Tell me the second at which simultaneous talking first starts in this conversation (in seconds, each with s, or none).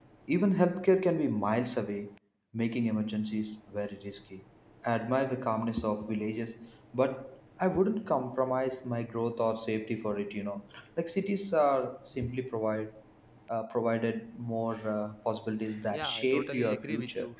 15.9 s